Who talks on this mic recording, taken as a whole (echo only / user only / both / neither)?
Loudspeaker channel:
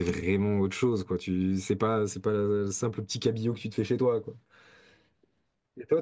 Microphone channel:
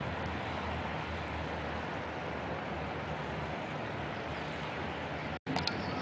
neither